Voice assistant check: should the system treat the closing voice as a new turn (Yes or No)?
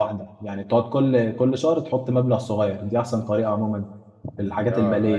Yes